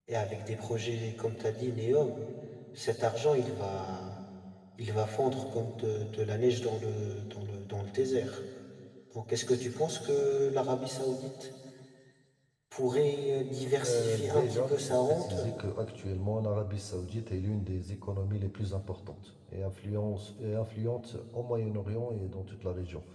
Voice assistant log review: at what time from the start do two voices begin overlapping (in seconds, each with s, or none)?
13.8 s